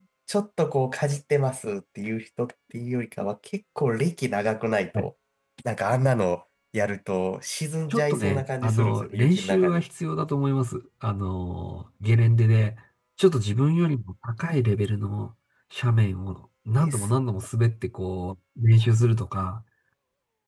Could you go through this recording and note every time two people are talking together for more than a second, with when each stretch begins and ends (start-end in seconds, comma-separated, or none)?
7.9-9.8